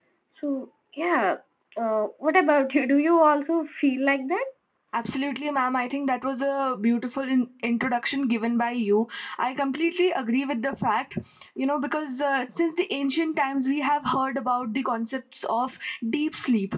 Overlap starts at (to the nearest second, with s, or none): none